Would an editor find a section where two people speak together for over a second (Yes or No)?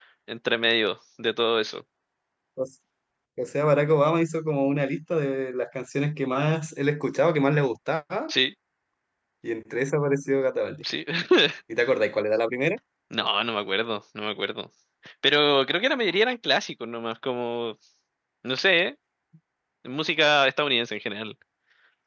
No